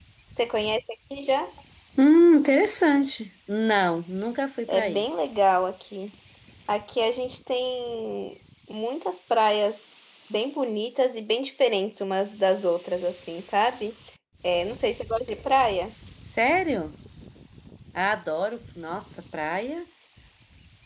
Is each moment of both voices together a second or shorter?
Yes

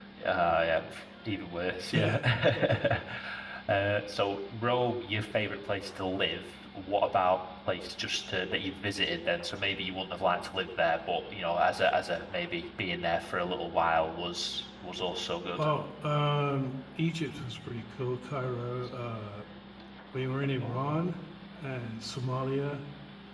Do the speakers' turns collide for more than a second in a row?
No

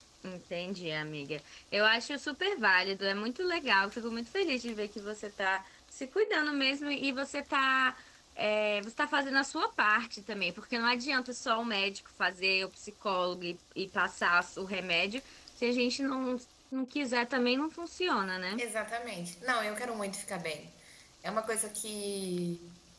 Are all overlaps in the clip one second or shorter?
Yes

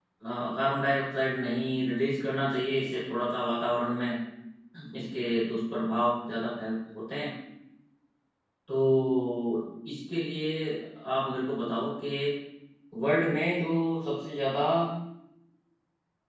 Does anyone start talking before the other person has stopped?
No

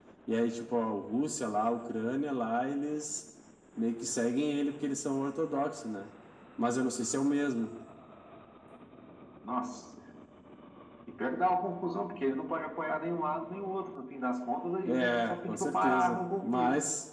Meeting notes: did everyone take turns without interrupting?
No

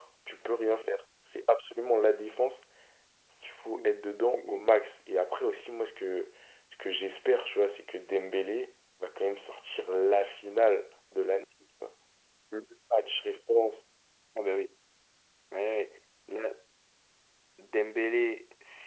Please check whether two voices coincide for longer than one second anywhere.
No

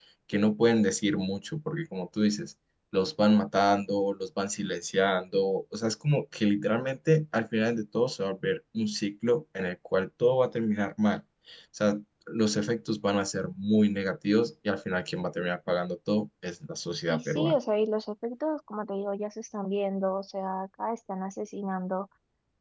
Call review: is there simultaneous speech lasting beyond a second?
No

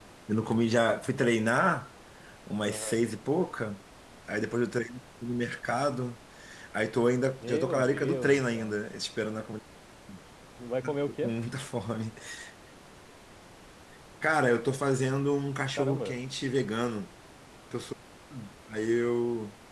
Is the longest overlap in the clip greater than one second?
Yes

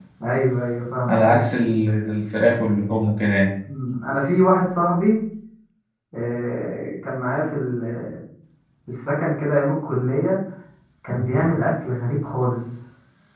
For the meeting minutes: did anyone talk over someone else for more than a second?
No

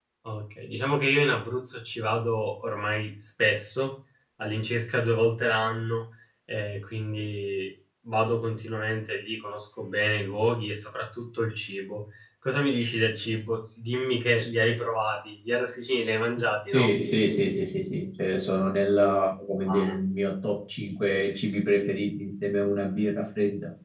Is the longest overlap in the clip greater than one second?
No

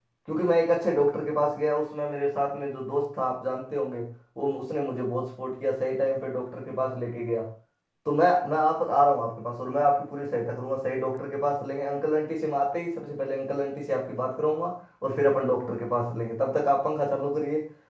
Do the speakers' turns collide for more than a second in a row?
No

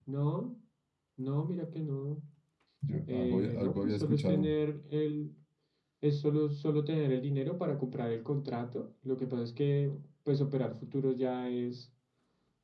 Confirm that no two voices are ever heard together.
No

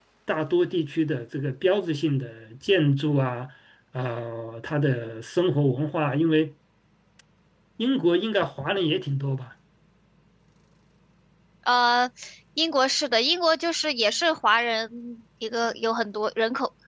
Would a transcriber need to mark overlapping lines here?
No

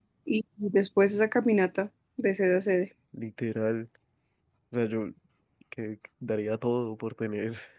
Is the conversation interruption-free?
Yes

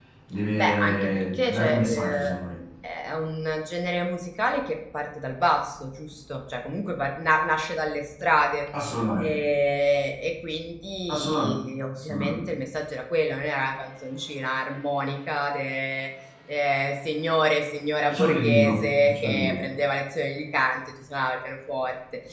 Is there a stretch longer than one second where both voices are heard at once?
Yes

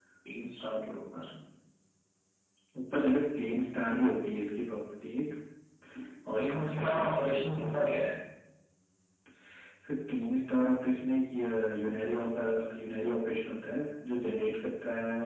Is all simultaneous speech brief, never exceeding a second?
No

